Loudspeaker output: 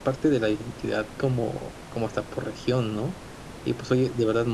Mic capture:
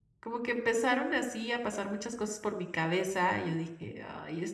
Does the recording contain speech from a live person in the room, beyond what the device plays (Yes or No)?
Yes